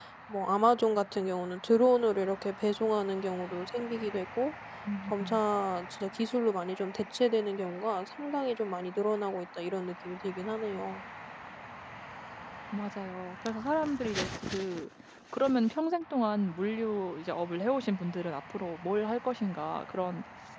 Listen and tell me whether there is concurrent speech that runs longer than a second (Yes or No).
No